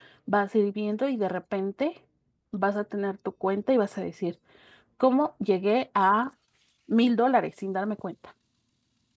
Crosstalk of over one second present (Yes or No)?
No